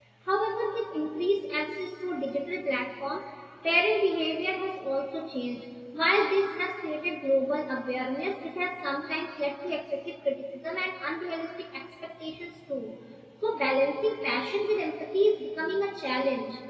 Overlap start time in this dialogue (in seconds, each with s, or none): none